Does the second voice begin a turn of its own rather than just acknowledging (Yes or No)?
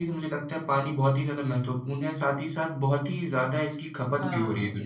Yes